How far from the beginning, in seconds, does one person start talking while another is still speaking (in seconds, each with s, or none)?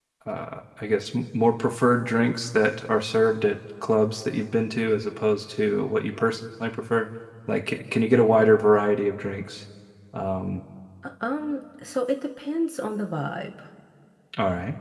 none